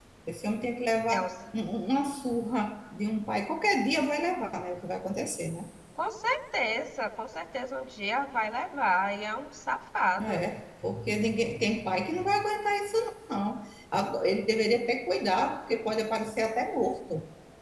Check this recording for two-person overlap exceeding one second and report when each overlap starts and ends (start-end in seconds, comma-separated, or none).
none